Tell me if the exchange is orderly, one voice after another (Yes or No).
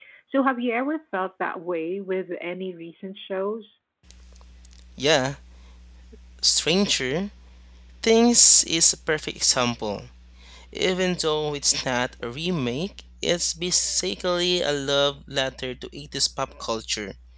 Yes